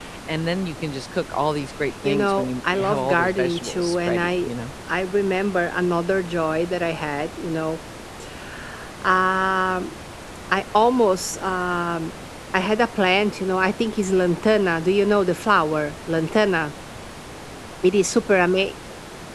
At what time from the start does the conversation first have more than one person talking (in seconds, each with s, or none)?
2.0 s